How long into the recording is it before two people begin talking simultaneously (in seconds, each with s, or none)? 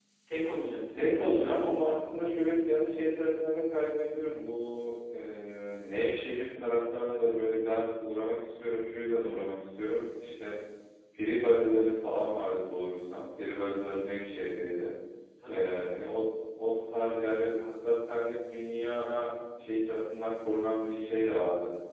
0.9 s